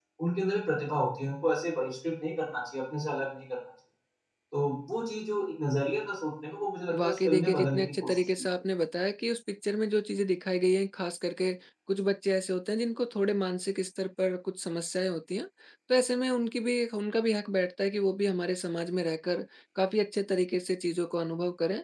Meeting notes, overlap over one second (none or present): present